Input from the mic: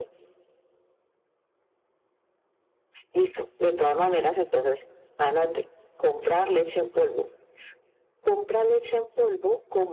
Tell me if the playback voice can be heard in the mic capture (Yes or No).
Yes